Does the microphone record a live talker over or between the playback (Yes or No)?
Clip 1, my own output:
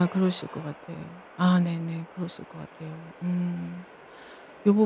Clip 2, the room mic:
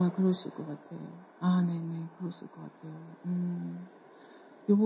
No